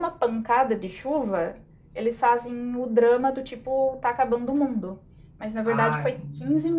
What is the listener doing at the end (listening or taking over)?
listening